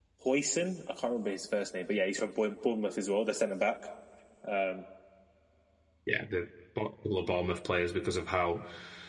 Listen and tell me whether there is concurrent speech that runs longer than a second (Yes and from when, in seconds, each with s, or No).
No